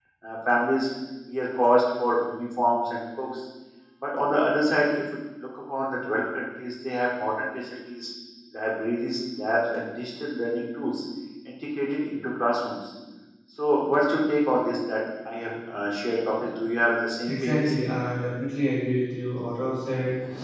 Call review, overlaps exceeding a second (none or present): none